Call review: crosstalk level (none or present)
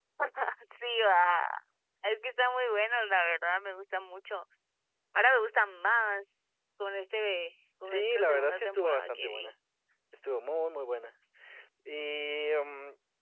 present